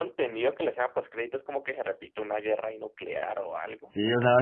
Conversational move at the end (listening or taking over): taking over